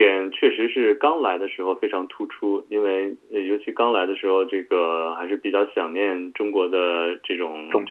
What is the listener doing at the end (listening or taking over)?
listening